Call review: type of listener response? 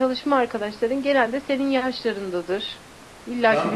taking over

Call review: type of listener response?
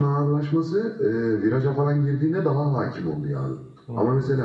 listening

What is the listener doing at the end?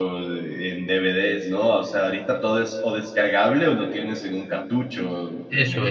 taking over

